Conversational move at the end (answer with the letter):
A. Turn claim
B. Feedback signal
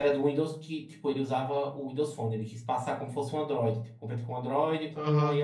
A